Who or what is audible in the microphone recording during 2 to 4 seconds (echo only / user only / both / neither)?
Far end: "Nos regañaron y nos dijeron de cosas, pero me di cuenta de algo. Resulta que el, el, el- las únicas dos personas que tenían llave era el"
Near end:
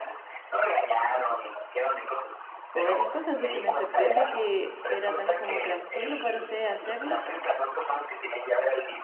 both